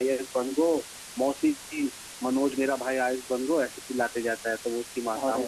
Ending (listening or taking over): listening